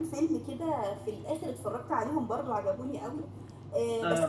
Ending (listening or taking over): listening